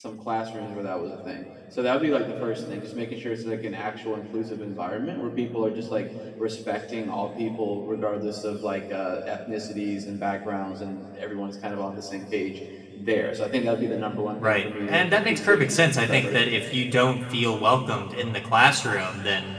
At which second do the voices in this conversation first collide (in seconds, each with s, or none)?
14.4 s